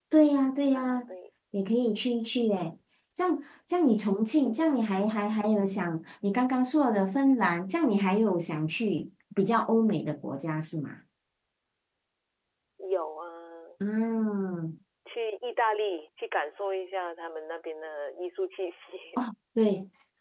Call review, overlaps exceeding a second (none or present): none